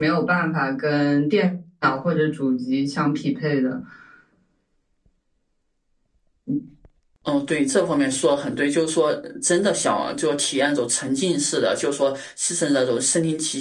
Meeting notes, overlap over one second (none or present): none